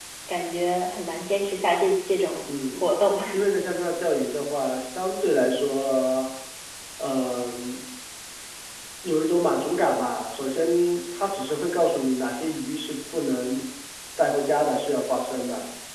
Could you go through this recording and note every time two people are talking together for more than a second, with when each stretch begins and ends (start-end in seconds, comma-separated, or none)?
none